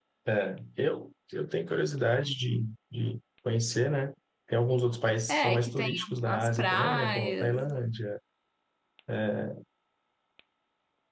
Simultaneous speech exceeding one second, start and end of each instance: 5.3-7.7

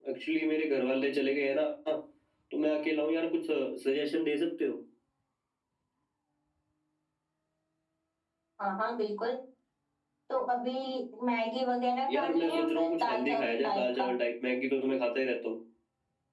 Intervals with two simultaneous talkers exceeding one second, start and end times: 12.1-14.1

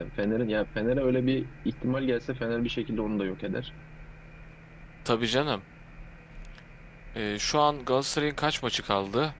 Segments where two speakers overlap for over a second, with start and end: none

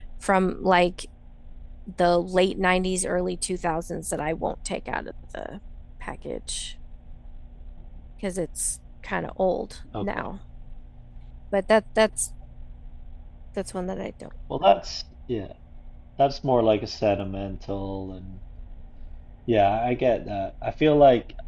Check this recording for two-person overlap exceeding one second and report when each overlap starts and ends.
none

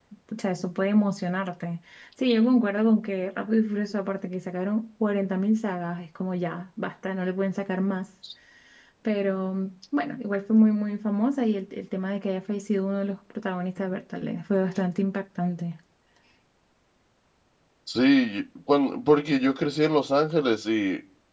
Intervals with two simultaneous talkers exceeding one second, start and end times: none

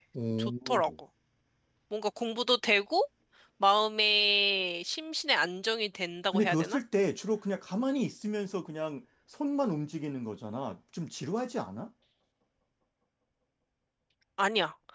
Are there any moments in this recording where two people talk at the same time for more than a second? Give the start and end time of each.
none

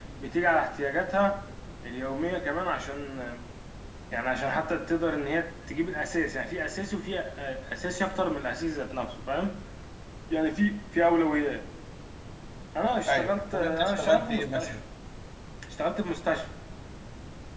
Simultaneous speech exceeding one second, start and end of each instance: 13.1-14.8

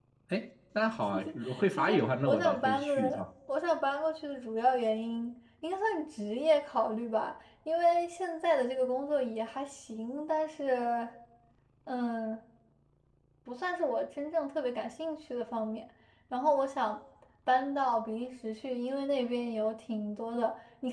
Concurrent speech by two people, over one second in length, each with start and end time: 1.8-3.2

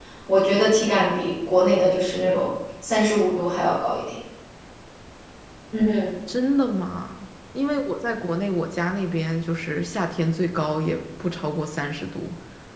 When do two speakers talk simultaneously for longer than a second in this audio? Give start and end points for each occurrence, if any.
none

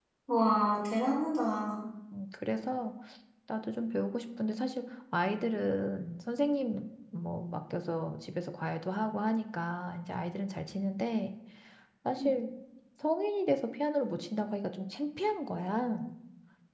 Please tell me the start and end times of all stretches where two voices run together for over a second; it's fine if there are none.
none

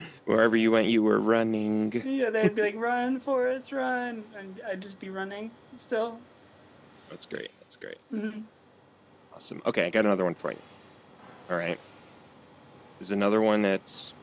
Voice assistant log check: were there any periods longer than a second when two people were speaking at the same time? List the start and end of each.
none

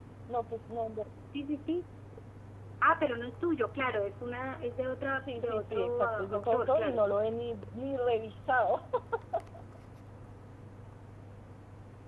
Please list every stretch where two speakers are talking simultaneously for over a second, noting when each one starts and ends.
5.2-7.0

